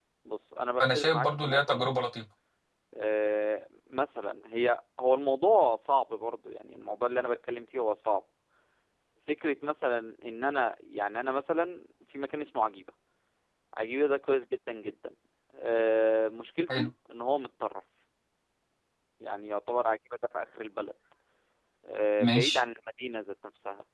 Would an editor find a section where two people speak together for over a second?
Yes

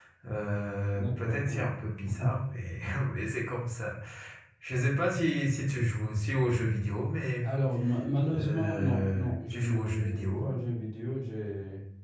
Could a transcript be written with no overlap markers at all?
No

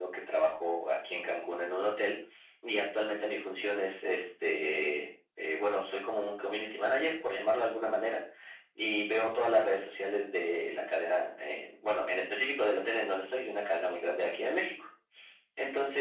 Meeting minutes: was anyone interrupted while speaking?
No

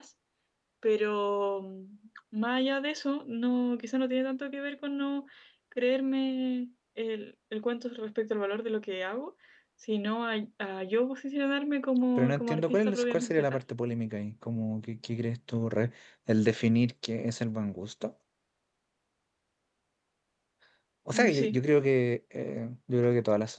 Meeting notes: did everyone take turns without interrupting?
No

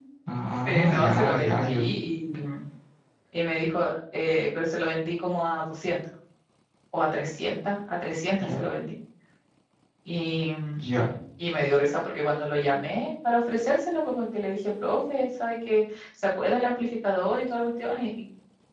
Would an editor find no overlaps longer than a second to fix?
No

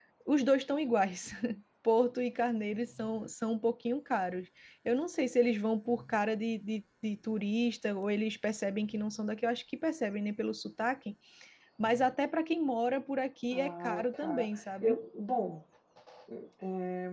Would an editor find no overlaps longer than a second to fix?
No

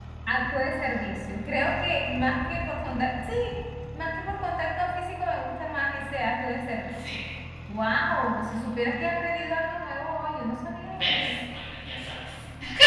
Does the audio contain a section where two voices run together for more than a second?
No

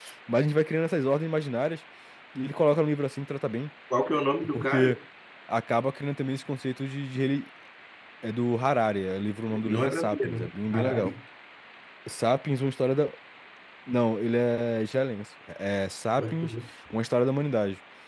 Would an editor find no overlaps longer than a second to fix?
No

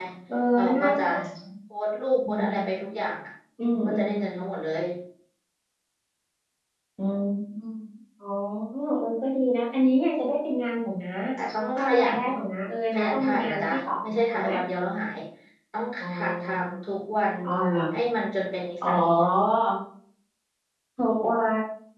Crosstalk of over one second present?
Yes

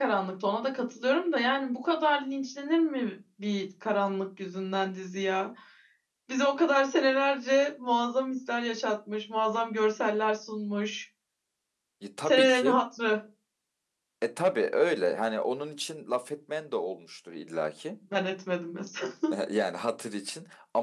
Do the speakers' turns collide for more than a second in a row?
No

